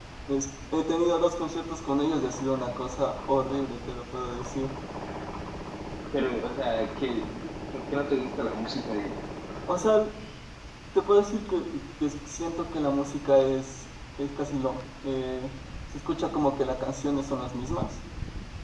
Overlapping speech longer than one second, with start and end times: none

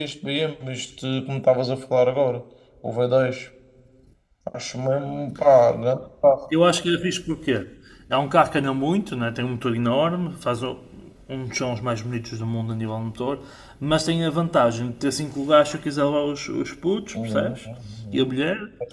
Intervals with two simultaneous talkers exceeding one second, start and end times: none

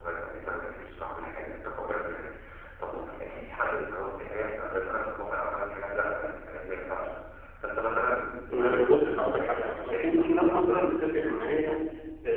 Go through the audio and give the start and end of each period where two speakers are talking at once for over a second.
8.5-10.8

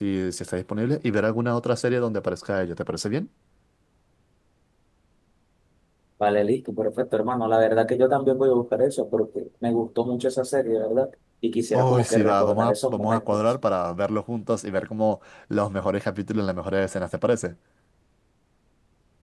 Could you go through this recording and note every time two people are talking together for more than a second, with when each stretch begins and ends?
11.8-13.4

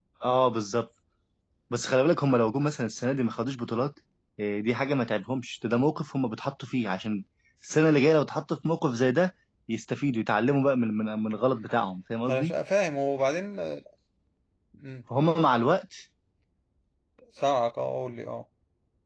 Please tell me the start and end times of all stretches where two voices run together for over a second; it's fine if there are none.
none

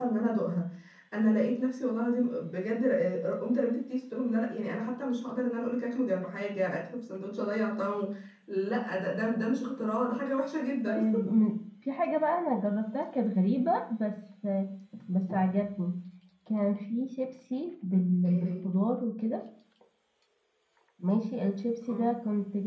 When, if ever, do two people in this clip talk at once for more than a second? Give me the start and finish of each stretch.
none

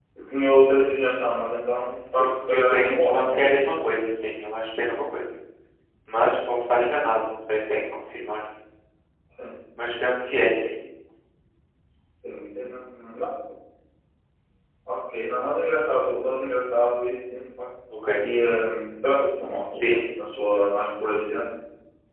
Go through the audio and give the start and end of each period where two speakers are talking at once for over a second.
2.2-3.6

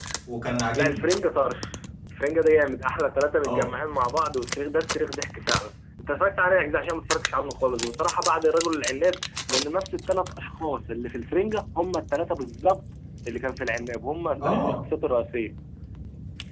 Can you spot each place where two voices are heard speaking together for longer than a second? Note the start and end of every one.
none

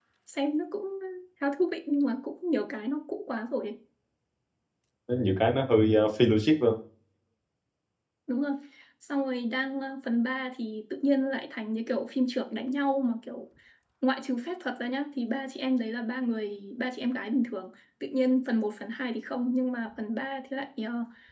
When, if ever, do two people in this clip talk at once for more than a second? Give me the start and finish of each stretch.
none

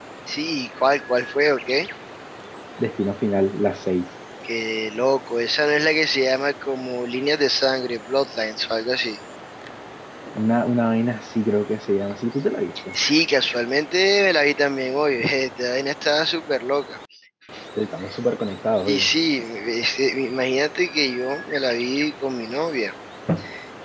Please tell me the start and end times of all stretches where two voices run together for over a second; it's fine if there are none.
none

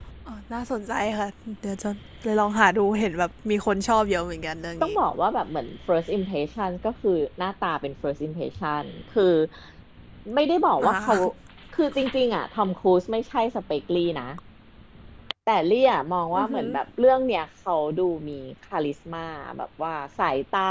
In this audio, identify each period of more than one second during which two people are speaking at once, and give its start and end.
none

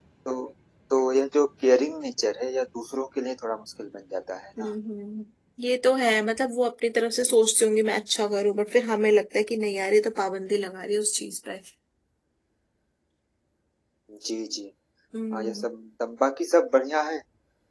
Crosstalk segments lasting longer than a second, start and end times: none

